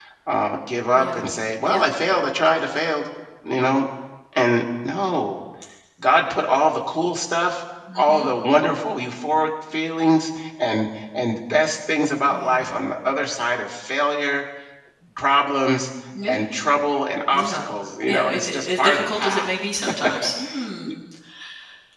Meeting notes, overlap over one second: present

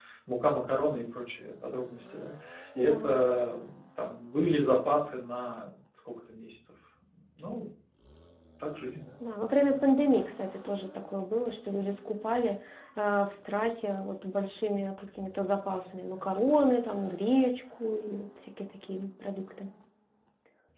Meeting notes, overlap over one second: none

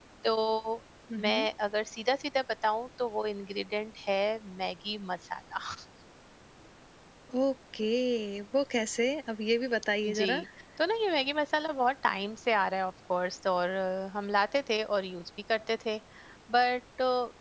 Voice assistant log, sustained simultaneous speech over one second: none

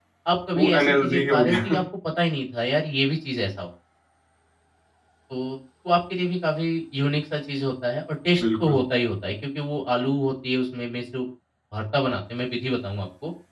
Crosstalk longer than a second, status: present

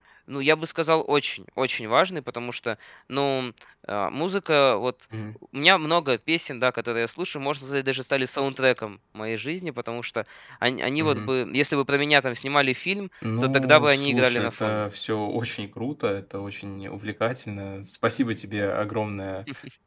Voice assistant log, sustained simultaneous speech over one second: present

